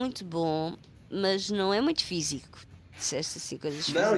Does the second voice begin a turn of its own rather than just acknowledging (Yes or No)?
Yes